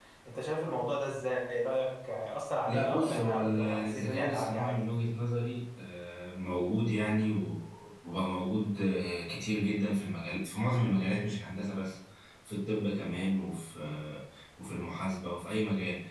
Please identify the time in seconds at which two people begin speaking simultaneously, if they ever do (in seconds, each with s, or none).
2.7 s